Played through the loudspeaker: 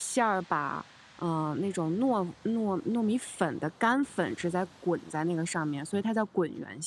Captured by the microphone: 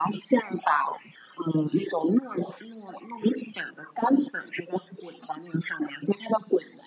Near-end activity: none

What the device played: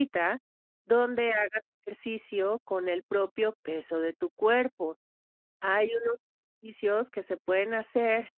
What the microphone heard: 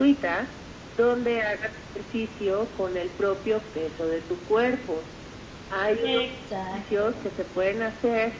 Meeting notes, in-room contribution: present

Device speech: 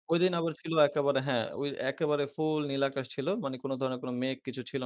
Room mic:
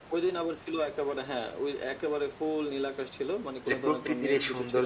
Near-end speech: present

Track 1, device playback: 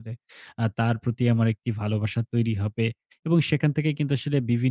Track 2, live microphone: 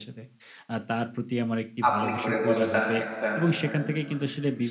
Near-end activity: present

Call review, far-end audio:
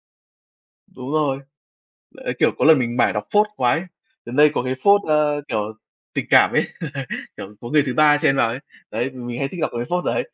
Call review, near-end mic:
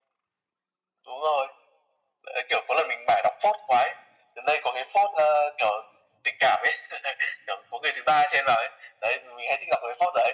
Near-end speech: none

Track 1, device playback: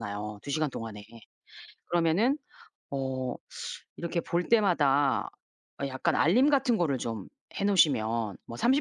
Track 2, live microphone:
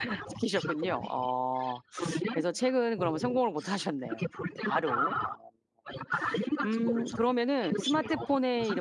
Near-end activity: present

